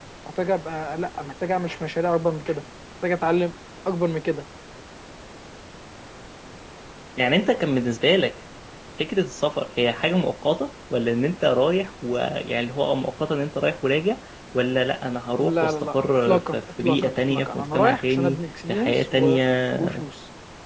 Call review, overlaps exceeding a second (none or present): present